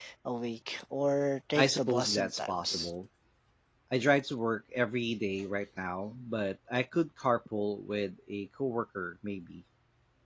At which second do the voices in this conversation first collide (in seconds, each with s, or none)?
1.6 s